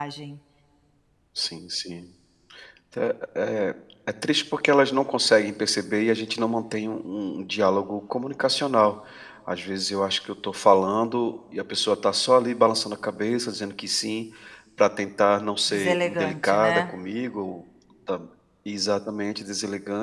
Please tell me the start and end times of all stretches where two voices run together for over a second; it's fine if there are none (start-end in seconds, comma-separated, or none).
15.7-16.9